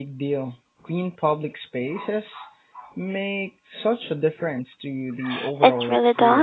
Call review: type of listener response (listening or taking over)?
taking over